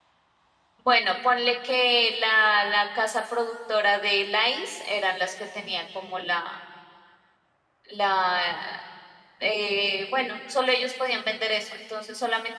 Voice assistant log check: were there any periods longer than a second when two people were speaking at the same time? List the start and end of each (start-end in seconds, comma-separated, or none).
none